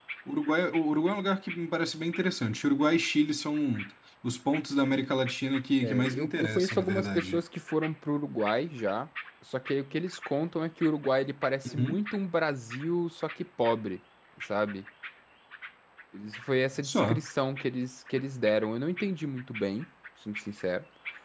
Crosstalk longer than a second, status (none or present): present